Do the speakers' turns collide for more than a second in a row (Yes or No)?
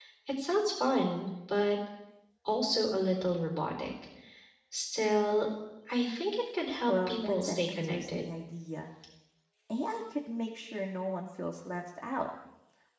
Yes